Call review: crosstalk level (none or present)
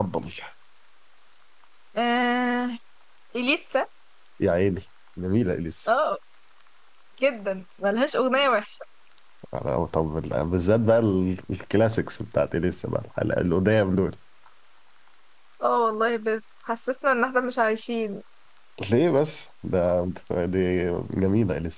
none